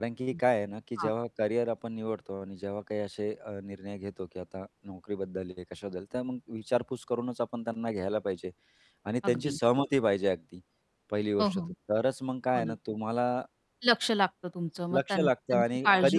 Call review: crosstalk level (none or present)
present